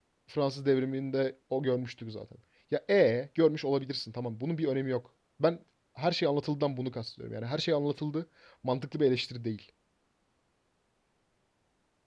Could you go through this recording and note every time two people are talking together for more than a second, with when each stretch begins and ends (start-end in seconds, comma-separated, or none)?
none